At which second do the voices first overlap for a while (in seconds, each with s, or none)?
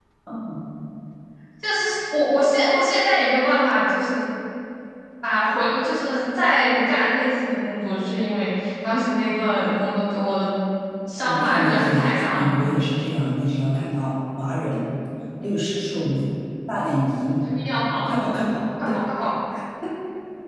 11.2 s